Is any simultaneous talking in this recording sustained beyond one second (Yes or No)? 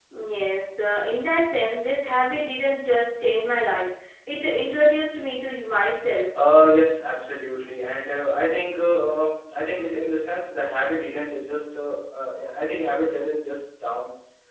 No